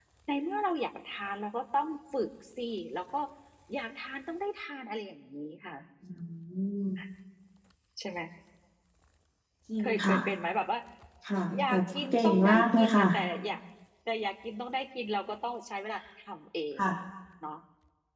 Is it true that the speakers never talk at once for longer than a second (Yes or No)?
No